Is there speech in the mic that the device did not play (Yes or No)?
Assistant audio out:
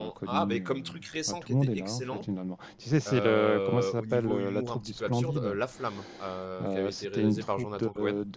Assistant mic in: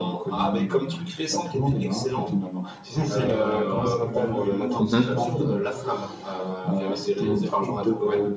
Yes